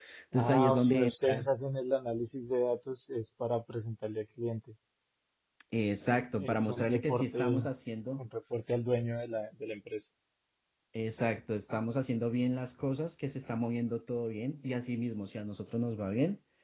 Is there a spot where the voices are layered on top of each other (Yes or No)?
Yes